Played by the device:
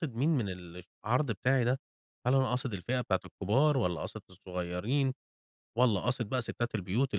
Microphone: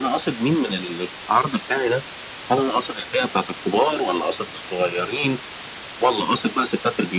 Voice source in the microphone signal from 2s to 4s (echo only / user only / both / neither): echo only